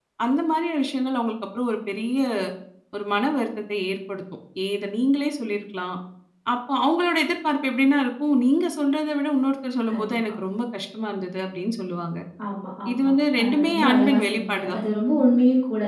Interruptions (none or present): present